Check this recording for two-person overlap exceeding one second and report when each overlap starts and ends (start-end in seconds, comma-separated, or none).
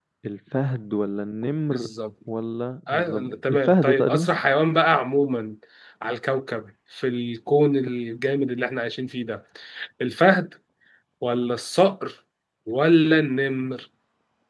2.9-4.3